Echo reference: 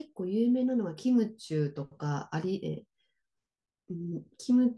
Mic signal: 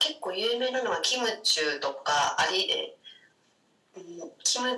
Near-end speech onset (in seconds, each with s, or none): none